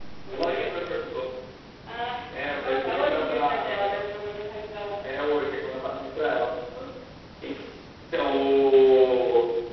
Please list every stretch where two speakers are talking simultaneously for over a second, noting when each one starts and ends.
2.6-3.9

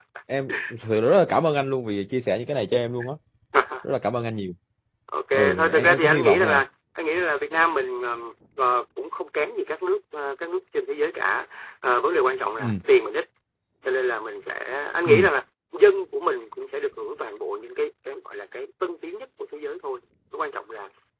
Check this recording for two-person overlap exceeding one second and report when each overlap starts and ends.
5.3-6.6

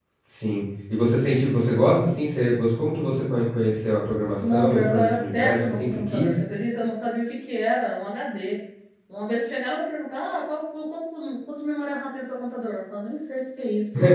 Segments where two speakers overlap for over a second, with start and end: 4.5-6.4

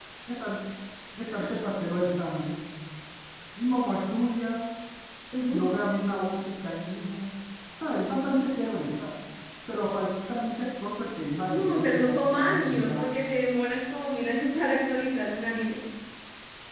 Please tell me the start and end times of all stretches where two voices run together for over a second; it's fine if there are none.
11.5-13.1

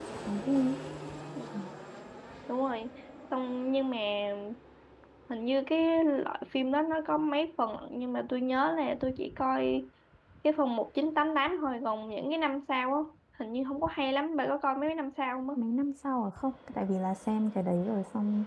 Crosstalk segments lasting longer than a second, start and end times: none

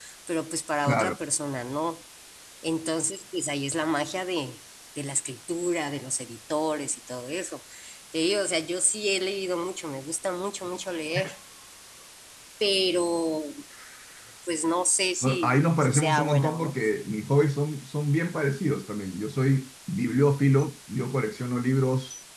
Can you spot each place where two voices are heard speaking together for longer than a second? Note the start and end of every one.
15.2-16.7

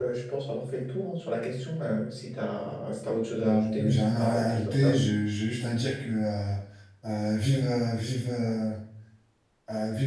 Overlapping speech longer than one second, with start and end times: 3.4-5.0

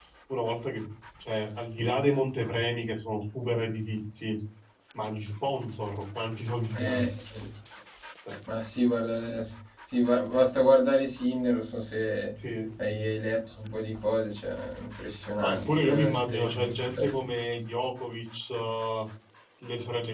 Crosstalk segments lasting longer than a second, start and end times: 15.4-17.2

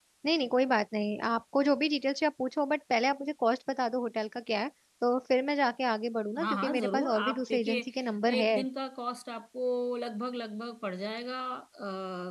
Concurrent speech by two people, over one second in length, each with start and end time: 6.4-7.9

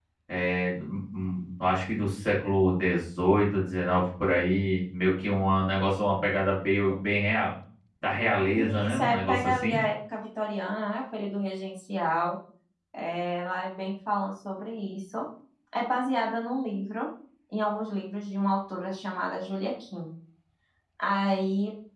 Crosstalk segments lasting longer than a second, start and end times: 8.6-9.8

